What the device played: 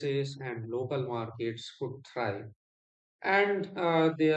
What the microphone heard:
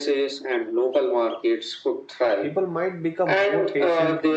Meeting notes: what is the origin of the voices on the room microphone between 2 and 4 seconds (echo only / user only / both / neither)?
both